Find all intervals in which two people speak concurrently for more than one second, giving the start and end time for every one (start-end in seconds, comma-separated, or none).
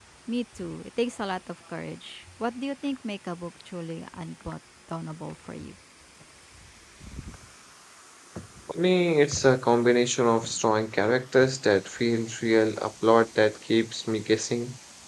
none